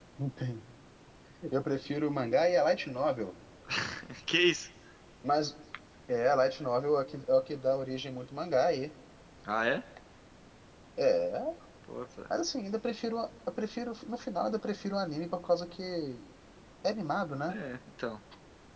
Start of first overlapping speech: none

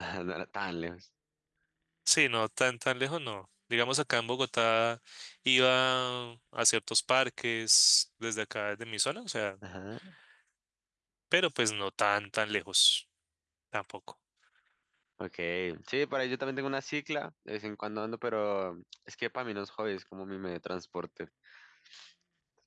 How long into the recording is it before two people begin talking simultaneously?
none

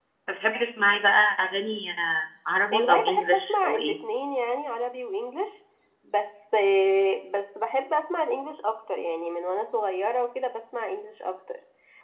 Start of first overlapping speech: 2.7 s

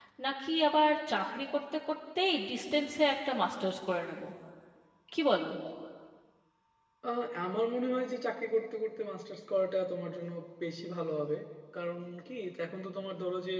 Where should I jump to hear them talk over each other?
none

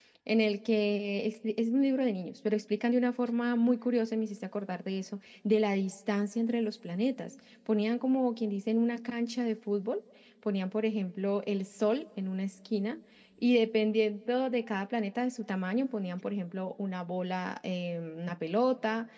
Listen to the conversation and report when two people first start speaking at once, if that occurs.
none

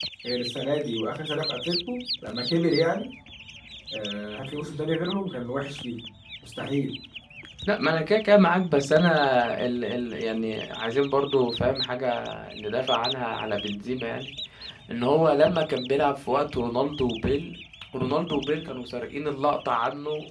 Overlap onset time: none

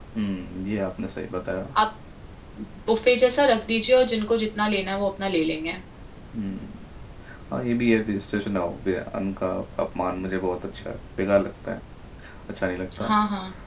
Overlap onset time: none

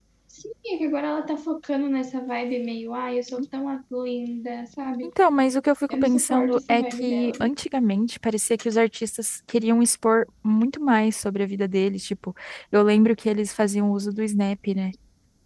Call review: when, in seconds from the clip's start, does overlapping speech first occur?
5.9 s

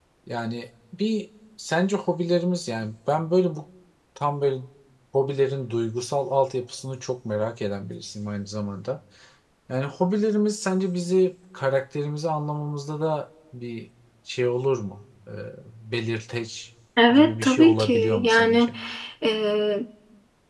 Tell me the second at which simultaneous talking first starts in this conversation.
17.0 s

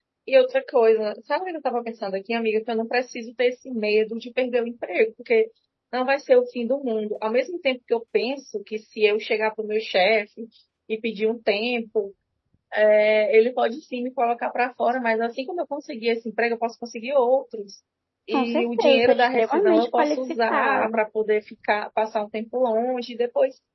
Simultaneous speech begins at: 18.3 s

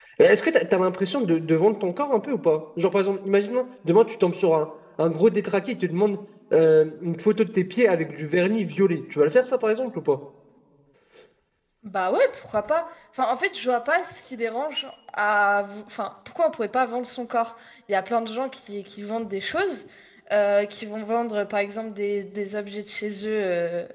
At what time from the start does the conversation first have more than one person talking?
none

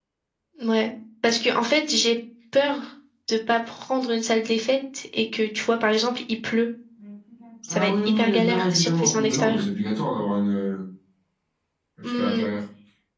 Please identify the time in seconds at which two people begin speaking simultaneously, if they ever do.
7.7 s

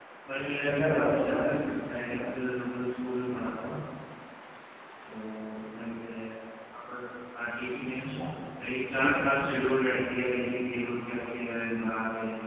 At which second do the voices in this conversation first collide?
0.6 s

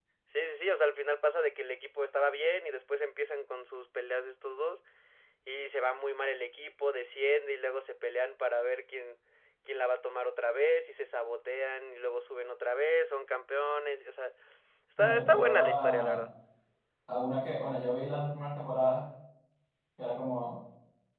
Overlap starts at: 15.0 s

